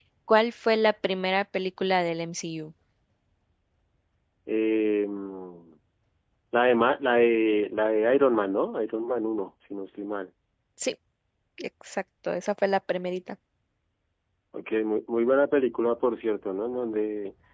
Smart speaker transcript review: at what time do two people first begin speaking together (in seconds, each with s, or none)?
none